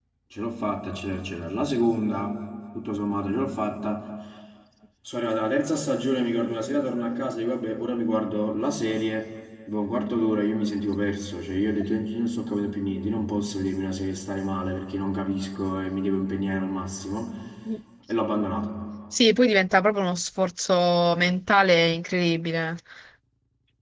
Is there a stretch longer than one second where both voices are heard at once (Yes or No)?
No